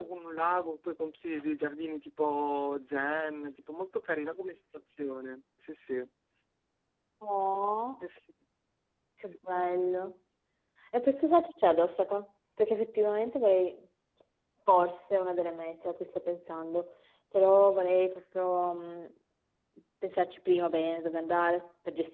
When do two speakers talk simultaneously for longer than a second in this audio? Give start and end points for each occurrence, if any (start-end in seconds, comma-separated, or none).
none